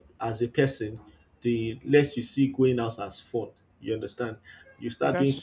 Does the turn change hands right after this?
No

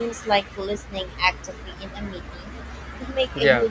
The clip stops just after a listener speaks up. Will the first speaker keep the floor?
Yes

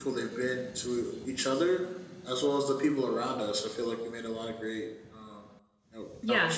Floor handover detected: Yes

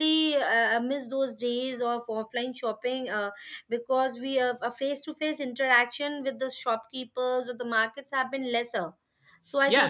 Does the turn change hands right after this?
Yes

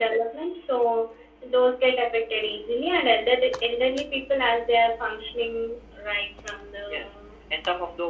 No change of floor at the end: No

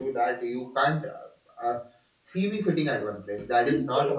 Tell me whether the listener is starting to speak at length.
Yes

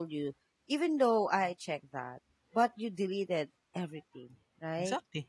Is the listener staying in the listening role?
Yes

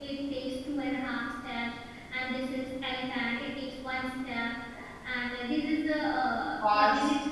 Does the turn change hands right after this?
No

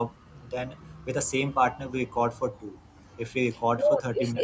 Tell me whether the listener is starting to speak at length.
Yes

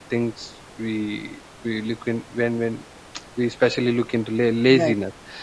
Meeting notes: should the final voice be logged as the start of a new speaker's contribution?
No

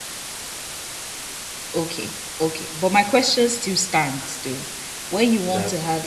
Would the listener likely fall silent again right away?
Yes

